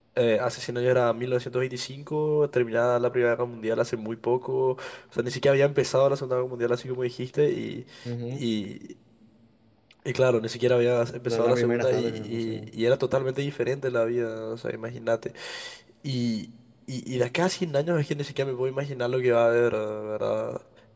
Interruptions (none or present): present